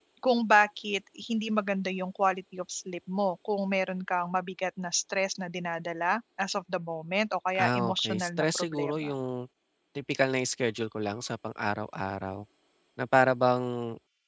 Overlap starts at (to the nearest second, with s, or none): 8 s